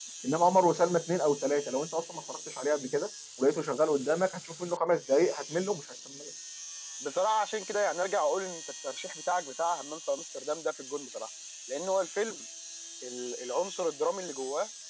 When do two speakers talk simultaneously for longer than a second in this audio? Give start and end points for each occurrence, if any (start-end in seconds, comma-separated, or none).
none